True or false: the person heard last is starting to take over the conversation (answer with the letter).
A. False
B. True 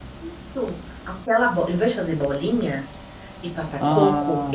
A